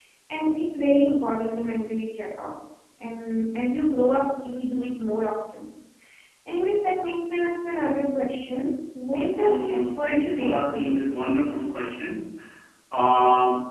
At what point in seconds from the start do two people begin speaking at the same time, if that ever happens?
9.4 s

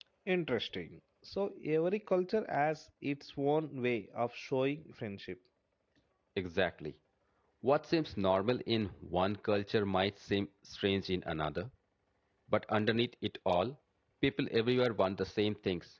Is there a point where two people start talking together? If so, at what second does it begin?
none

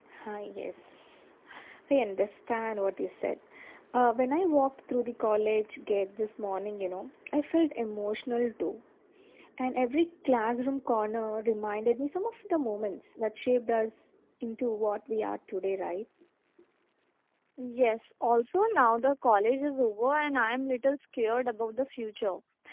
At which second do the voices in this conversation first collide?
none

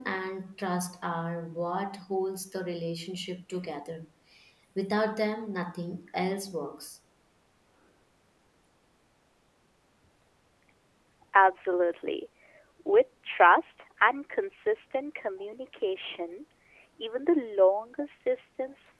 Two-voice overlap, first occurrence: none

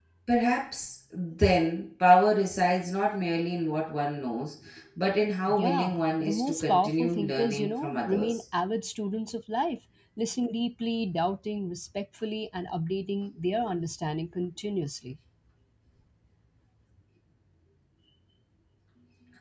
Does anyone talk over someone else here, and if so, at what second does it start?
5.6 s

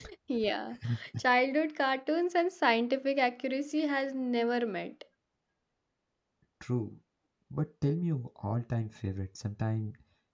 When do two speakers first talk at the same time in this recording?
none

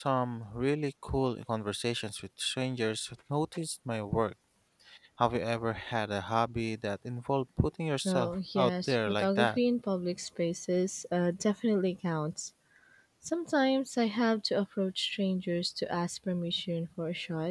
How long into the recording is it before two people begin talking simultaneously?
8.1 s

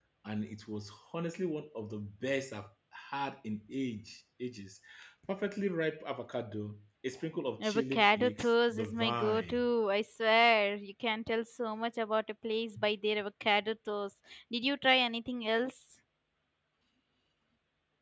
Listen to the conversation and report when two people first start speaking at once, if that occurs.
7.6 s

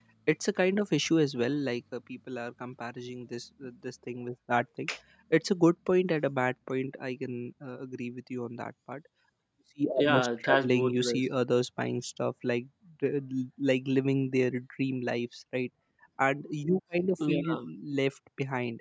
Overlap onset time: 10.0 s

